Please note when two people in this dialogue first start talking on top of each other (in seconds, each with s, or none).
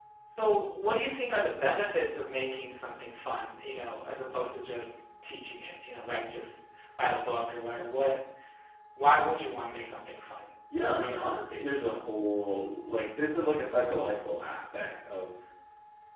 none